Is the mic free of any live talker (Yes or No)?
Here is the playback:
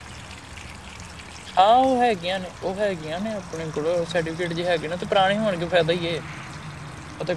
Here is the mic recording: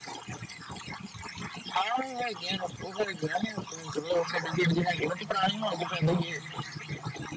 Yes